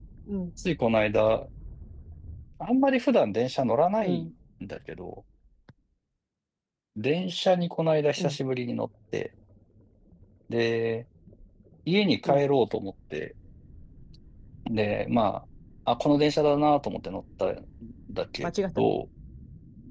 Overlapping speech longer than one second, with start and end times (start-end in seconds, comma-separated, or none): none